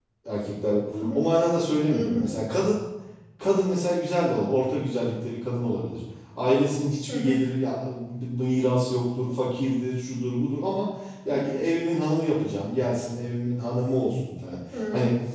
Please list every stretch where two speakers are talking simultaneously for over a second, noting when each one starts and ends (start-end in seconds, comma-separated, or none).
none